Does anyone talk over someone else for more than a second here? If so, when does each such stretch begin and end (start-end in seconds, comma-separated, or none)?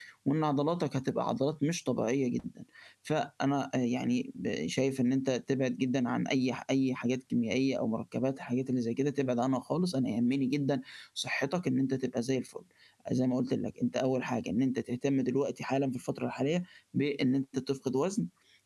none